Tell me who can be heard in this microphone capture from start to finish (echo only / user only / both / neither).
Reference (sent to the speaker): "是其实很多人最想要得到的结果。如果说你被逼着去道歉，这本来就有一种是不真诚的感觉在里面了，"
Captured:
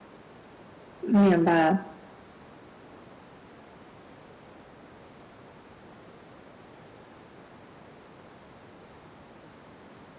user only